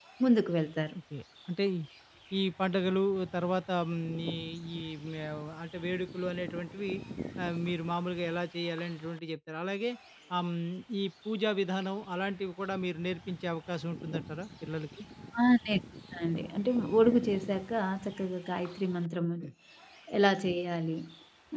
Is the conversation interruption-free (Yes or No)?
Yes